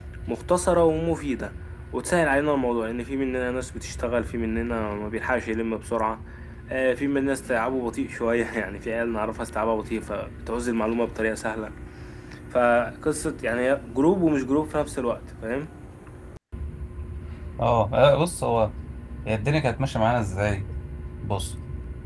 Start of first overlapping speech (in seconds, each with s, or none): none